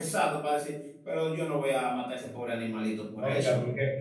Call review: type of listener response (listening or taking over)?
taking over